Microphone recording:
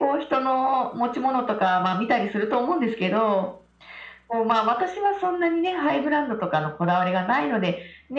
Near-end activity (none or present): none